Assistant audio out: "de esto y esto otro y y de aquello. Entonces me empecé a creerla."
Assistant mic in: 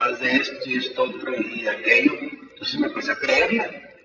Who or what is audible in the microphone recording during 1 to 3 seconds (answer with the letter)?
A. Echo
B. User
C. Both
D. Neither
A